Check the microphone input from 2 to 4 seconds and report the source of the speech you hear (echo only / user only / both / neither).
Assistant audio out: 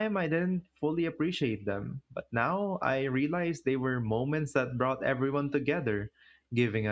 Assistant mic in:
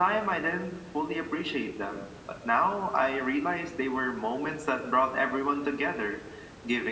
echo only